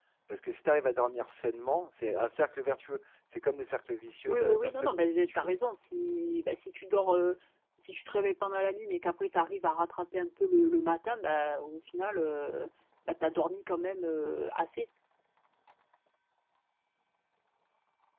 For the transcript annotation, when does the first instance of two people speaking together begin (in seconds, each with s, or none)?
4.3 s